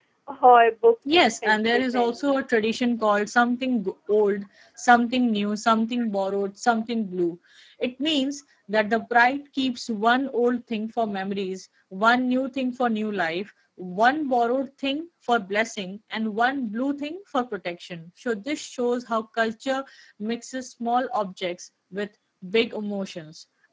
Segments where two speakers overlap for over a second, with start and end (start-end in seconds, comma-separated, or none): 1.1-2.4